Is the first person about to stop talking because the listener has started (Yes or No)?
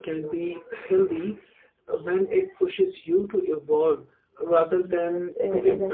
Yes